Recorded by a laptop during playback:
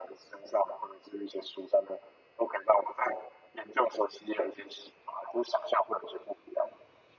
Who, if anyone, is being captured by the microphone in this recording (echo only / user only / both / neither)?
echo only